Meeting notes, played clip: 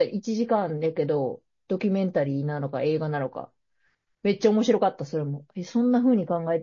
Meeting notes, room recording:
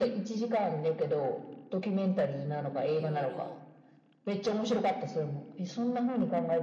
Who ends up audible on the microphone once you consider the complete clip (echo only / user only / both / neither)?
both